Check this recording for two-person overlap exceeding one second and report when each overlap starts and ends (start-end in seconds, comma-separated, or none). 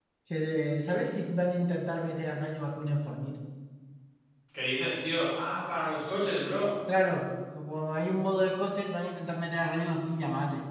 none